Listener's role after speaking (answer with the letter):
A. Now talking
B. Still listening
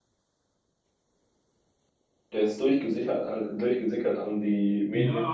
A